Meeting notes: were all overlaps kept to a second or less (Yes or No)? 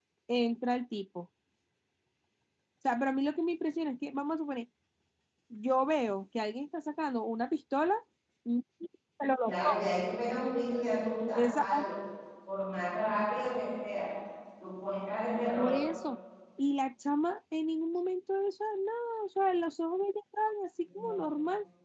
Yes